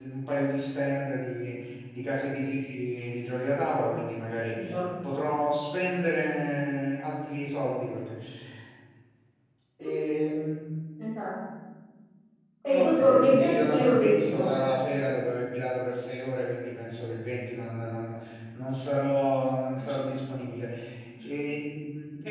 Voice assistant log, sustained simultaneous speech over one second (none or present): present